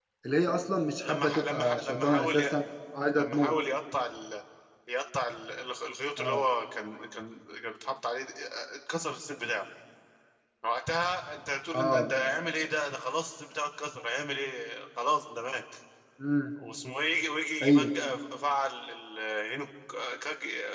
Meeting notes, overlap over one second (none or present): present